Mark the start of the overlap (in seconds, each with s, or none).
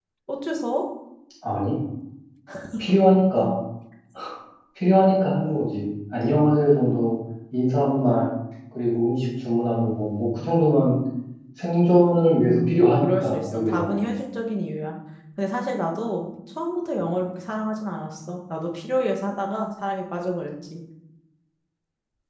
12.4 s